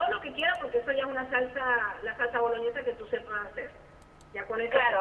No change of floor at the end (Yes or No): No